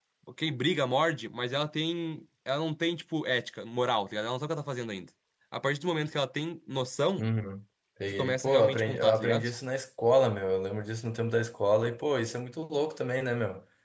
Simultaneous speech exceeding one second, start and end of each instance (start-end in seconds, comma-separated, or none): 8.1-9.5